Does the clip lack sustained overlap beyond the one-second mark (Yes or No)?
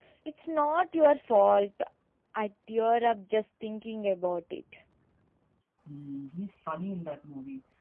Yes